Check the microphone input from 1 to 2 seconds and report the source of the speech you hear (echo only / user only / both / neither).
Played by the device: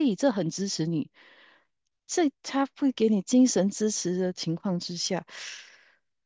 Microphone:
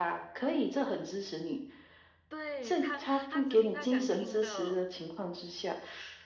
echo only